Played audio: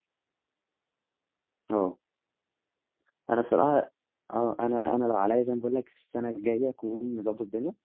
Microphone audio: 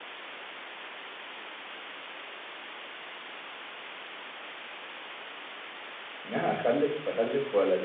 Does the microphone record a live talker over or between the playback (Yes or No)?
Yes